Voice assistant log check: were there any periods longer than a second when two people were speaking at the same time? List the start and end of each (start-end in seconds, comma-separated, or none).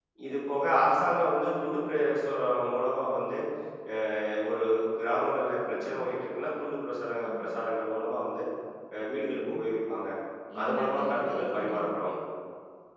10.6-12.1